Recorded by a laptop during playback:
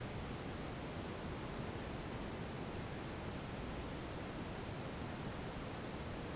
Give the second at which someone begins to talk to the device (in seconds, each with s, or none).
none